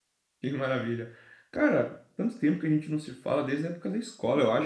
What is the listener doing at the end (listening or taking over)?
taking over